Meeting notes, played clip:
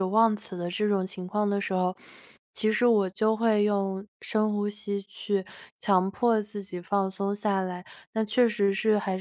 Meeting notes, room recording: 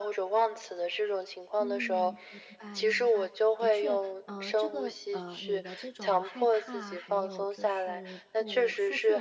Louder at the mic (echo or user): echo